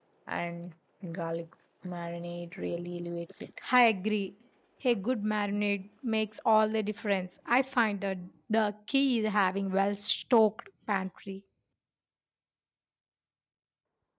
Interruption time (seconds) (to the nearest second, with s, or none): none